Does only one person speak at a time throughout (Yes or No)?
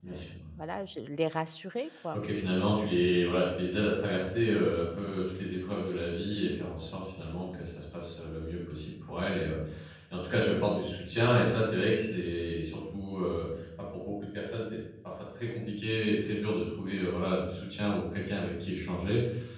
Yes